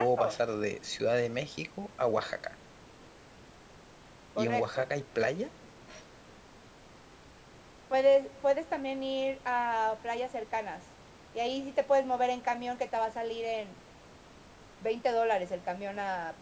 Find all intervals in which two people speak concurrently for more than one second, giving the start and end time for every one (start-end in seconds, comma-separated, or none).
none